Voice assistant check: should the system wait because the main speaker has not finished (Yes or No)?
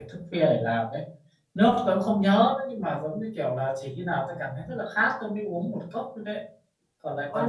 No